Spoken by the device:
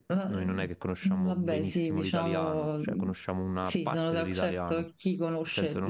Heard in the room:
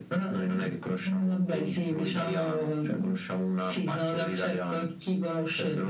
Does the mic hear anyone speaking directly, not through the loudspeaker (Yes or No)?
No